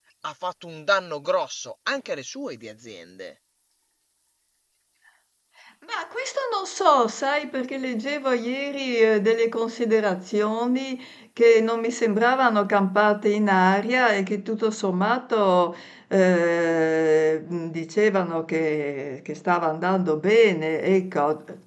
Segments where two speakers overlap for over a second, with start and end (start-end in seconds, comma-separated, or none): none